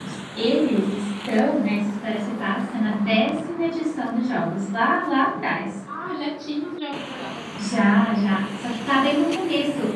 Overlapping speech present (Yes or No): No